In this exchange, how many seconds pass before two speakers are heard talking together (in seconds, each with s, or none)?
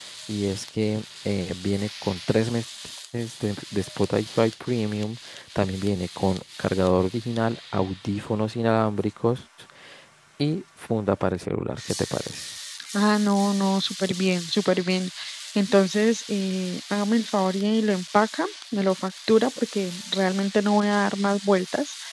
none